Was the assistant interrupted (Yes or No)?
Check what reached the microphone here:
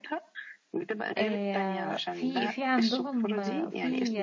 Yes